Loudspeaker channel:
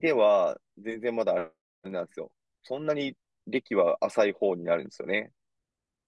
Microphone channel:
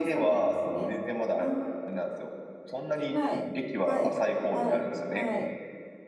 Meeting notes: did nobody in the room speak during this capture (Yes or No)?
No